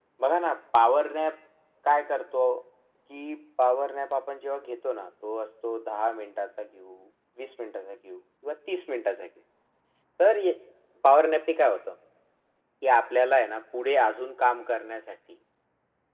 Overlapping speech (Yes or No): No